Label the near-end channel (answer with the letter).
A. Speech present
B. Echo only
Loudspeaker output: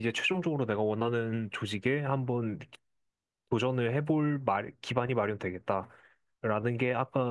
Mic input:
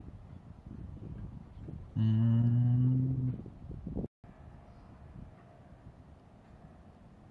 A